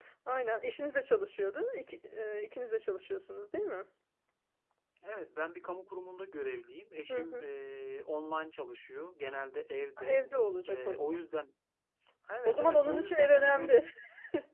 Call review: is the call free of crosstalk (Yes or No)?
No